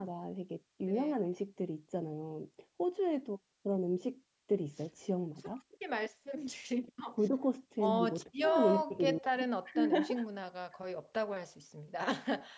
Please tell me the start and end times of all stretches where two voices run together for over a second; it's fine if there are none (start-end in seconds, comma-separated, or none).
7.8-9.2